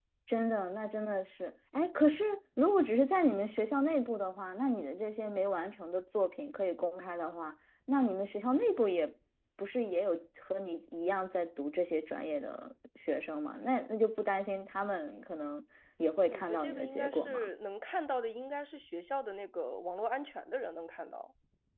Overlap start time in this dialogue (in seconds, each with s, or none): 16.3 s